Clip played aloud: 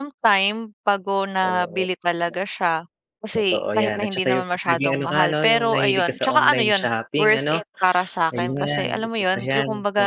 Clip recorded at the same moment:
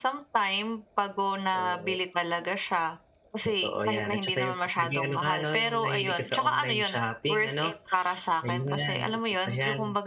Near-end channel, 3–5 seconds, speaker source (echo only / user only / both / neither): echo only